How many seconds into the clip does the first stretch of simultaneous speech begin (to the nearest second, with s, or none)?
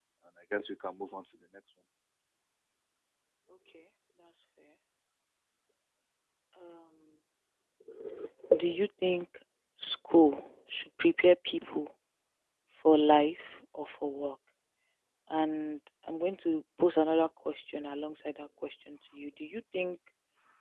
none